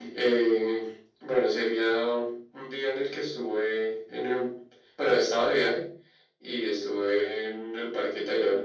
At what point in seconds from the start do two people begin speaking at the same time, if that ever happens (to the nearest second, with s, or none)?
none